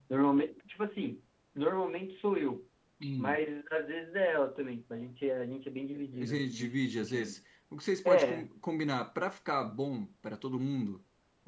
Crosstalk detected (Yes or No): Yes